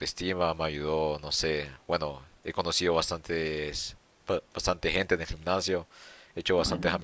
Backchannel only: Yes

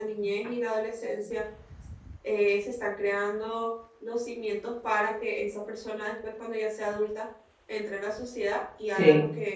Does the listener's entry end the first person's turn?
No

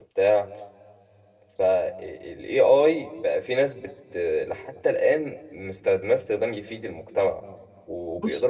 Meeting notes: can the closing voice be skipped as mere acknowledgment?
Yes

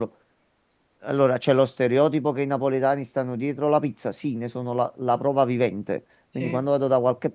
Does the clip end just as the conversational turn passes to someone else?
No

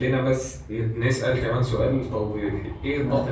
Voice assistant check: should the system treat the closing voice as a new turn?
No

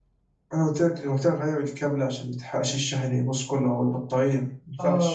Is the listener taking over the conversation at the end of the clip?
Yes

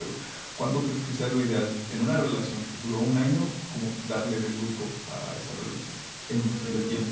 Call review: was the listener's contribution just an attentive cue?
No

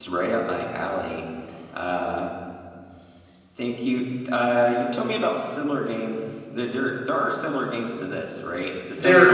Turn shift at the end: No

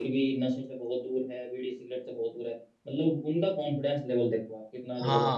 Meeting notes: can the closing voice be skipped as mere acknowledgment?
No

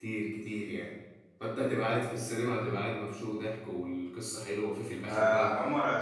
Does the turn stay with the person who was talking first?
No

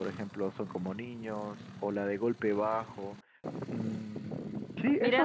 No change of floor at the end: No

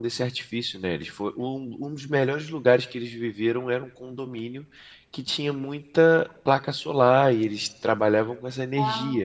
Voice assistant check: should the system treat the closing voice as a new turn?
No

